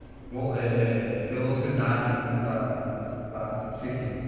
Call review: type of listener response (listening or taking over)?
taking over